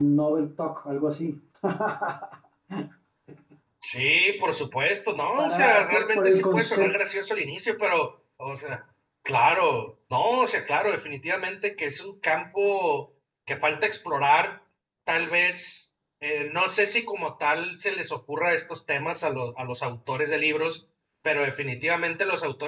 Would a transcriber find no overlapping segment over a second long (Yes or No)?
No